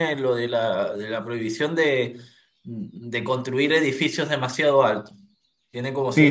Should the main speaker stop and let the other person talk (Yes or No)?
Yes